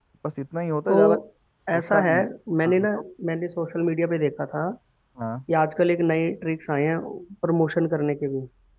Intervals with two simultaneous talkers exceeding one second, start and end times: none

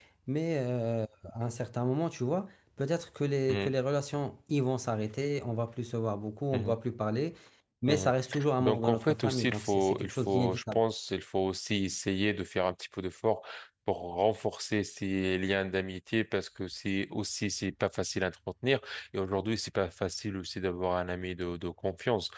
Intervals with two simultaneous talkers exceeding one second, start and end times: 8.6-10.8

